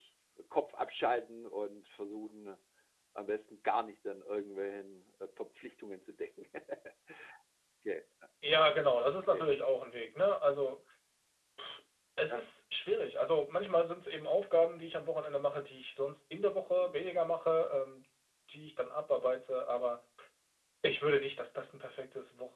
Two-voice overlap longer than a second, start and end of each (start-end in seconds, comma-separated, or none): none